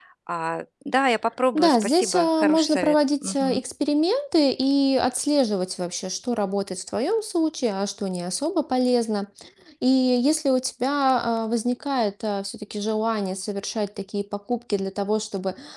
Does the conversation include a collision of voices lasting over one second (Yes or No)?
Yes